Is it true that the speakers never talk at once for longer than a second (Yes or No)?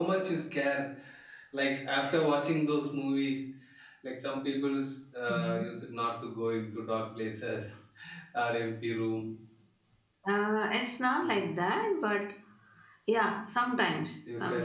Yes